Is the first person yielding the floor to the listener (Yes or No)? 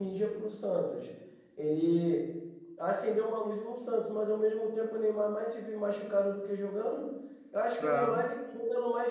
No